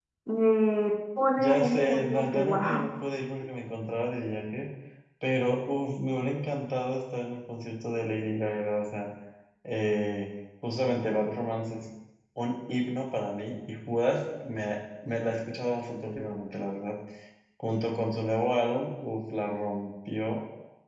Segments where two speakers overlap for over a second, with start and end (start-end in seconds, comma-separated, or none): 1.4-2.8